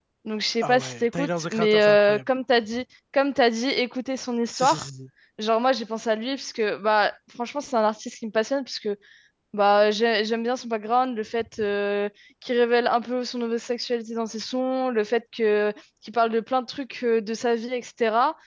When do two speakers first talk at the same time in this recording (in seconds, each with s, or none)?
0.6 s